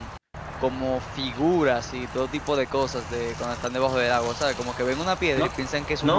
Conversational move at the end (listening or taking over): taking over